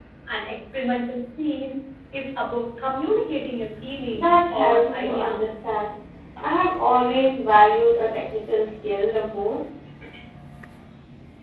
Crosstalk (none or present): present